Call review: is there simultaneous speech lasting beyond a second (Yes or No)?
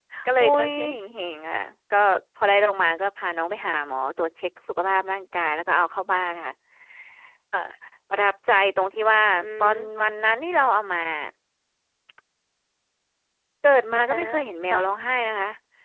No